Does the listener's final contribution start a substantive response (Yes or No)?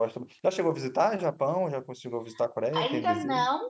Yes